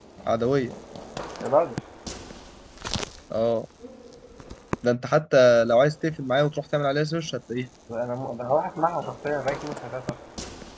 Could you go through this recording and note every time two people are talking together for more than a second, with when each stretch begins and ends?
none

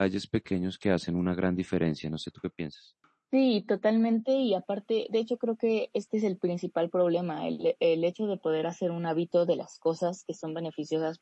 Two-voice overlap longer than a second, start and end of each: none

